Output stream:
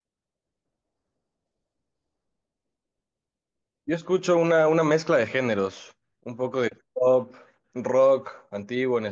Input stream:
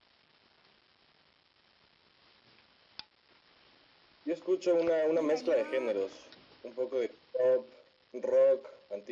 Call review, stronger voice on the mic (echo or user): echo